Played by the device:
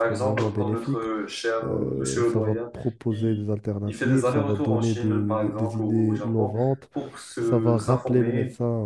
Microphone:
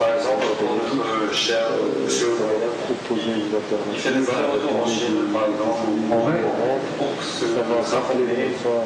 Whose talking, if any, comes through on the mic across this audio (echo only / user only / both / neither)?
both